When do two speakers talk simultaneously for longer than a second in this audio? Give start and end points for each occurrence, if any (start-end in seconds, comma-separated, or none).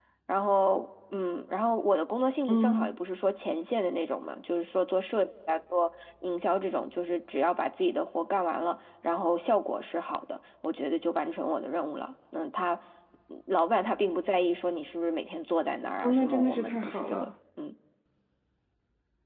16.0-17.3